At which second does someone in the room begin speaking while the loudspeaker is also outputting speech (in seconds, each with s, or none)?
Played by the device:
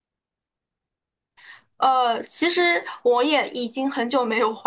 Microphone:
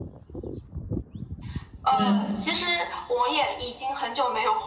2.0 s